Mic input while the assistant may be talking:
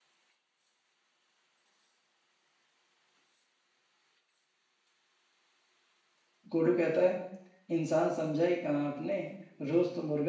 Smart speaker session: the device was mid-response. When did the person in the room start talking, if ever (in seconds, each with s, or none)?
6.5 s